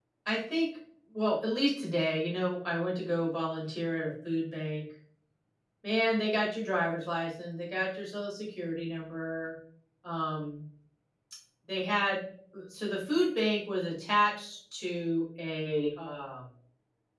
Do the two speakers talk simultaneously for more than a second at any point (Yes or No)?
No